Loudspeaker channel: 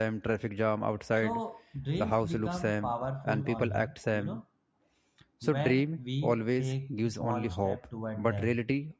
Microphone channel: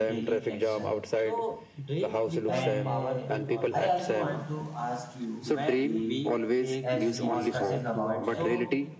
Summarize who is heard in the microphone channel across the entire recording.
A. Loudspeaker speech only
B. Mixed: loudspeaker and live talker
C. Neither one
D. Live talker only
B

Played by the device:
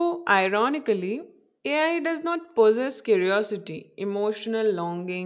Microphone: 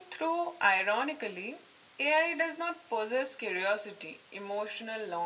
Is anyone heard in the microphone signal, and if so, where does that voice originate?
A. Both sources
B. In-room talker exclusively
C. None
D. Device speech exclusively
D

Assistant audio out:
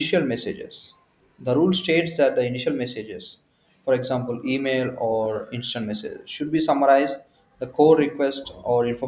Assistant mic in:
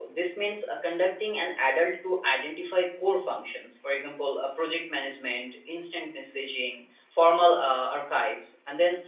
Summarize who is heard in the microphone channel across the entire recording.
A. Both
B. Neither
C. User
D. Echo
C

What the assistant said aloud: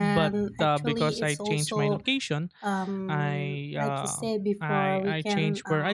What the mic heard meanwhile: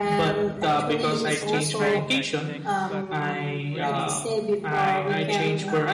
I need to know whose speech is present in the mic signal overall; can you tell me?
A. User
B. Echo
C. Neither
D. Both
D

